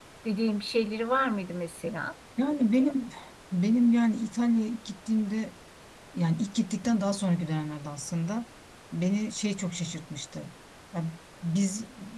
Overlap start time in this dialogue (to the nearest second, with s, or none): none